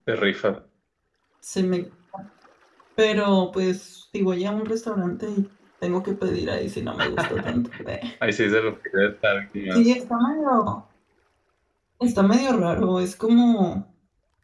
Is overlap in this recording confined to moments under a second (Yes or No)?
Yes